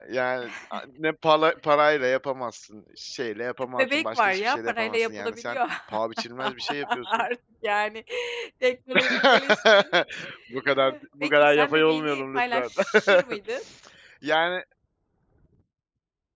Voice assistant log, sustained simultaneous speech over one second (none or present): present